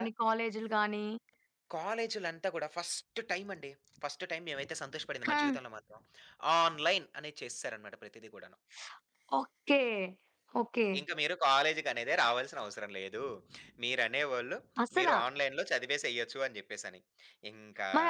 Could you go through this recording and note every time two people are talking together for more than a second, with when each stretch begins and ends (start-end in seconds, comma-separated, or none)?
none